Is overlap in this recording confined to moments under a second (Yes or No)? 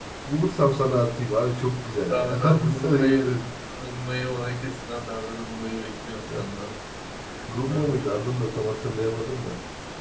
No